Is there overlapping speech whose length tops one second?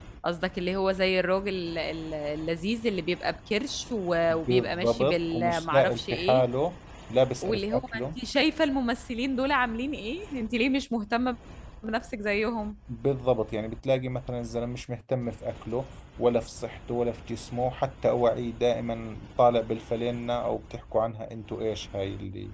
Yes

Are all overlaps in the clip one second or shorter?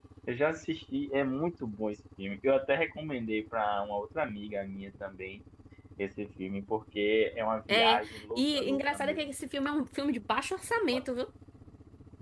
No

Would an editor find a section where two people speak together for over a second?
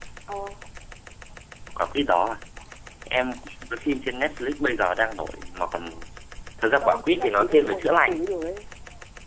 Yes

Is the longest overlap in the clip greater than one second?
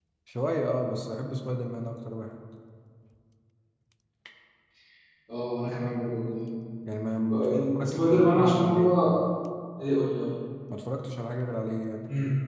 Yes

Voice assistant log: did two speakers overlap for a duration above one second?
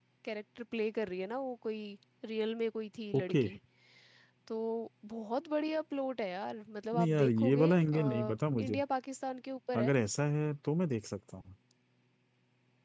Yes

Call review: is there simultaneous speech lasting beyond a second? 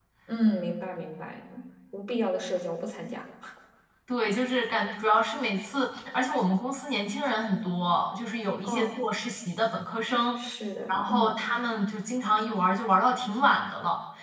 No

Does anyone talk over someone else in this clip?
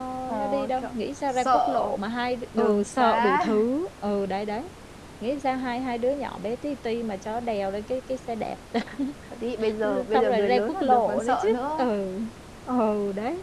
Yes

